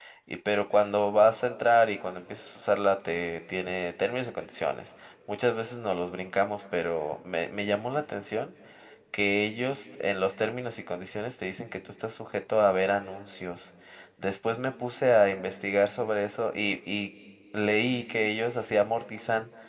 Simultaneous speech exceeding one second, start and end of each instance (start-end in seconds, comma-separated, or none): none